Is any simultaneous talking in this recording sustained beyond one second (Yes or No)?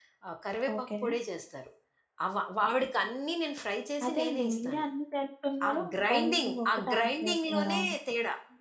Yes